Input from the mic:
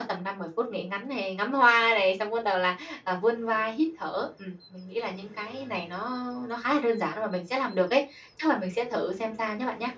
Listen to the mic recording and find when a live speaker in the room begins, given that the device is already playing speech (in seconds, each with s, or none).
none